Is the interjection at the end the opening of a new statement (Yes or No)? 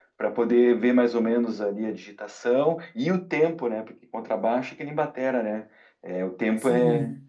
Yes